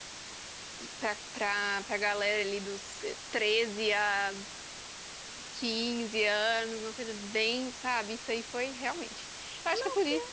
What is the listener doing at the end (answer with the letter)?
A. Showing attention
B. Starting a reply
A